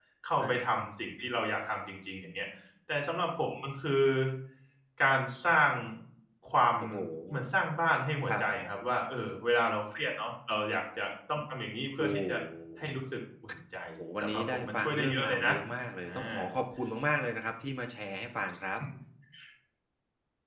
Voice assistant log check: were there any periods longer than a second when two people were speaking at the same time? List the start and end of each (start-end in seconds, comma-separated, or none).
14.2-15.5